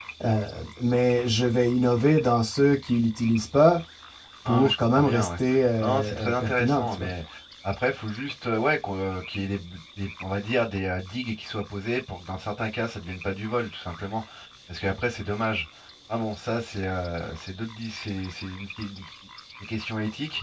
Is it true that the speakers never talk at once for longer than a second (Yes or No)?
No